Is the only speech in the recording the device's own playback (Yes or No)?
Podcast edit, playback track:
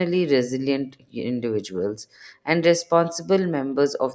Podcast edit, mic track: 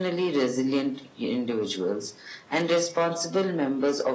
Yes